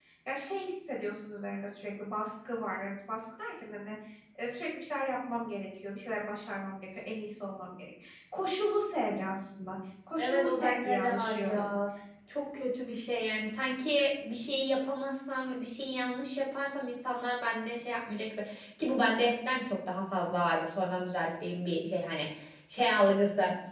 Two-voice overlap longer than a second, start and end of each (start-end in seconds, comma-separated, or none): 10.2-11.8